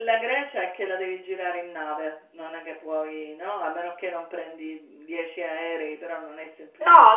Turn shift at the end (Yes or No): Yes